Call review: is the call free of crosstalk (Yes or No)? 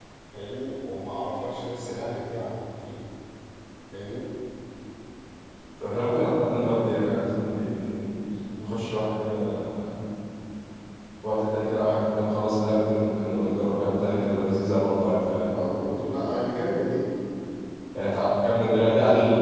Yes